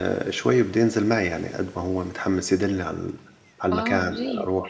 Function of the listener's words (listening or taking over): taking over